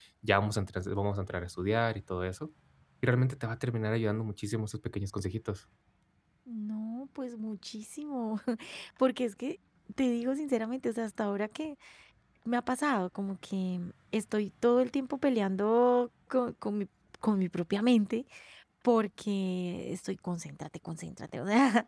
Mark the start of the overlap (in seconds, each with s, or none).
none